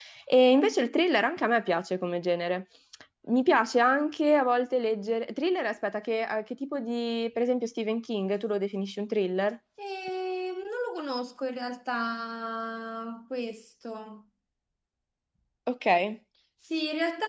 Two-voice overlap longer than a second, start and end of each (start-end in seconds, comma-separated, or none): none